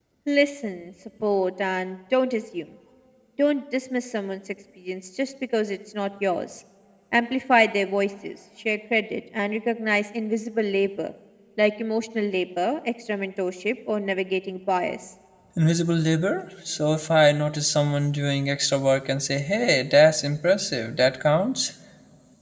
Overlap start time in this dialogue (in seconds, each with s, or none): none